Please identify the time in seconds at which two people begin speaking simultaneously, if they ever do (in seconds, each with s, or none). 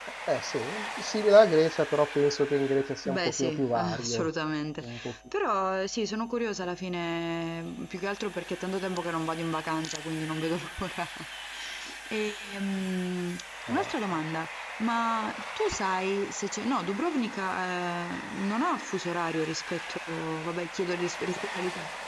3.0 s